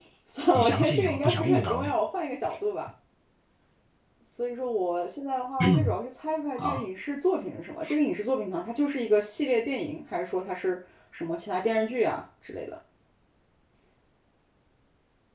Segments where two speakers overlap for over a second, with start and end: 0.5-1.9

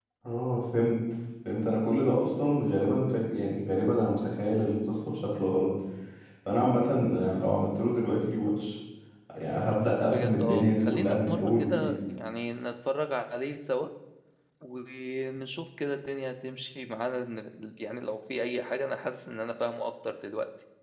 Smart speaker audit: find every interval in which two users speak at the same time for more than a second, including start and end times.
10.0-11.9

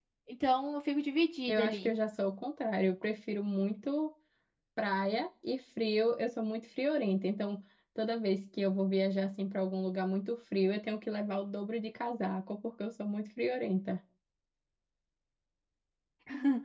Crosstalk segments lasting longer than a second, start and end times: none

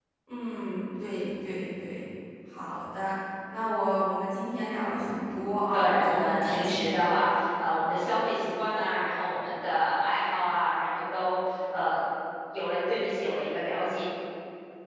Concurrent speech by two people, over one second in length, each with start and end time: 5.7-7.0

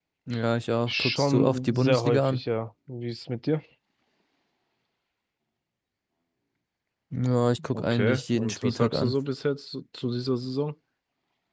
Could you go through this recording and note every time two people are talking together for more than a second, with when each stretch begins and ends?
0.9-2.4, 7.7-9.1

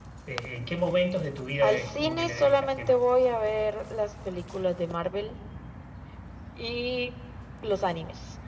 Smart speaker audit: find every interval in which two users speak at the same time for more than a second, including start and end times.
1.6-3.0

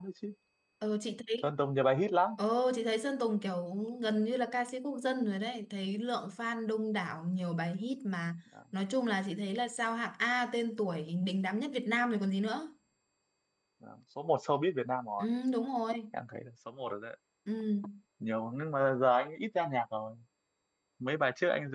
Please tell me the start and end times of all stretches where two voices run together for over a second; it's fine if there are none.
none

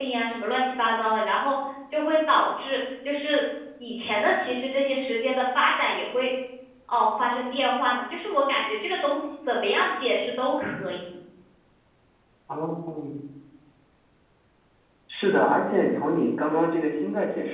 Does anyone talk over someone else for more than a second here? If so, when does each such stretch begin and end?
none

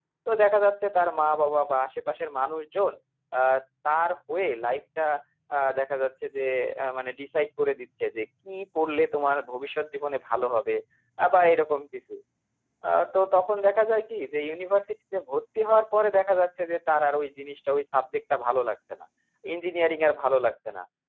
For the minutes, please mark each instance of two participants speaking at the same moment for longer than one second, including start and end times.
none

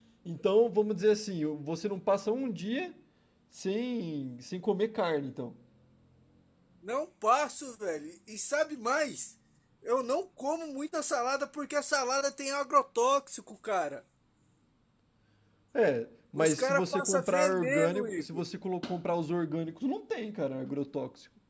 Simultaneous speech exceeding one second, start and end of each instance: 16.4-18.5

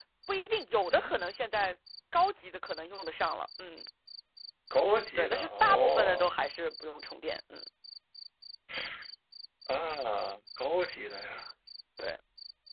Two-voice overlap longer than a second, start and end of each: 5.2-6.4

